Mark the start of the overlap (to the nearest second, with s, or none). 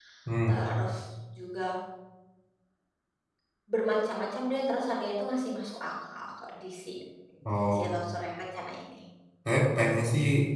none